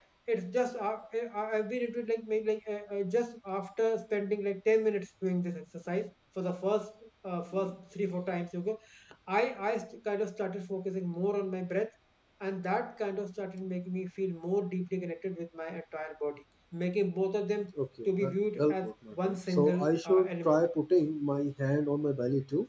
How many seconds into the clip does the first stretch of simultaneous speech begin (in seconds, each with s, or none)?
18.1 s